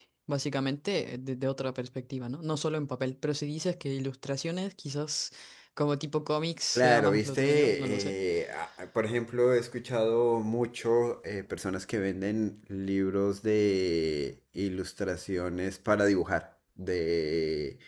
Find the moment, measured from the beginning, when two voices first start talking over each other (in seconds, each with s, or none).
6.8 s